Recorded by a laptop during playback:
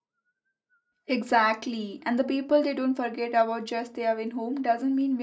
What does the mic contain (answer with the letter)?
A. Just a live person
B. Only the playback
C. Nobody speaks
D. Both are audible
A